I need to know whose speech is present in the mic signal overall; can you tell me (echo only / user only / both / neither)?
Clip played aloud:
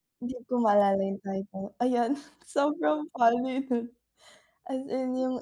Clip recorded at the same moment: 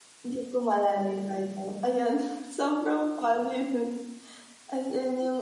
echo only